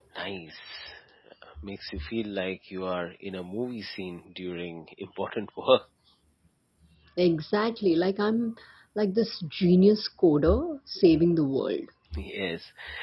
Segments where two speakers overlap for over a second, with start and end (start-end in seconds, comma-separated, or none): none